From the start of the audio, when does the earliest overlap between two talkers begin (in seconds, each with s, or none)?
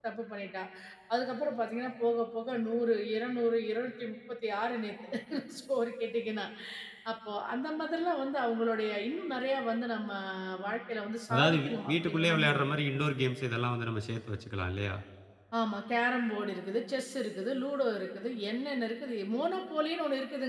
11.3 s